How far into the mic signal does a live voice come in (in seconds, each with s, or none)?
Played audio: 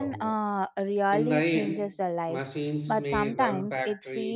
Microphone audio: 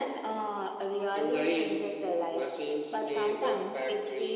none